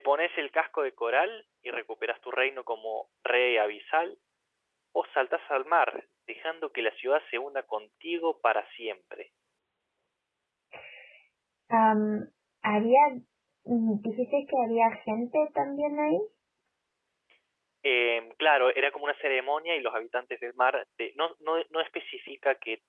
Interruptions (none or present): none